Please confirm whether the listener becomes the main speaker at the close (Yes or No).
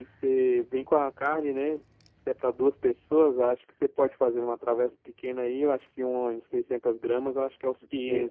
Yes